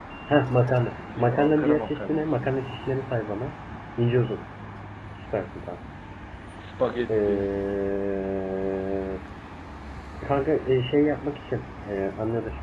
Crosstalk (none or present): present